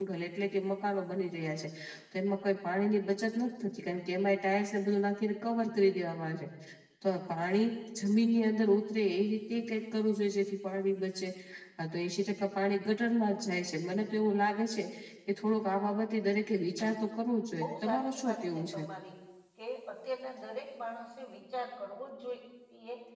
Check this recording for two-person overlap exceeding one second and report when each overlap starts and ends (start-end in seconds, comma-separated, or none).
17.6-18.8